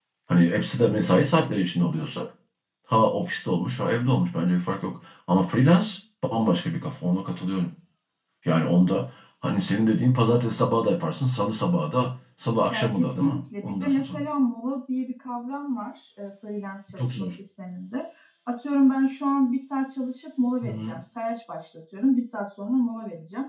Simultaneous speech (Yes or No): Yes